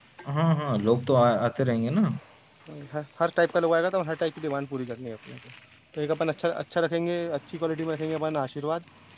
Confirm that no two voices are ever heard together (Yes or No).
Yes